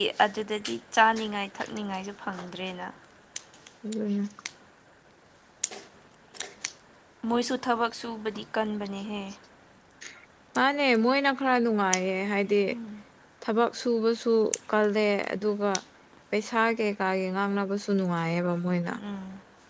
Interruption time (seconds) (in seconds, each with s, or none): none